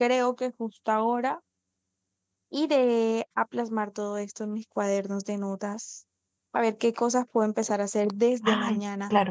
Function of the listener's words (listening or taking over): listening